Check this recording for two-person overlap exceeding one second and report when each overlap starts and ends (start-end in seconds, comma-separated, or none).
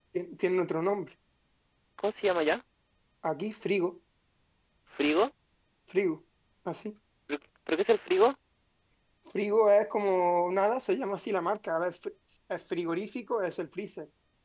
none